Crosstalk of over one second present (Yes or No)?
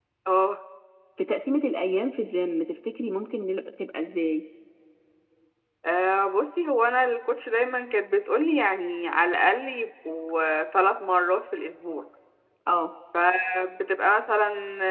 No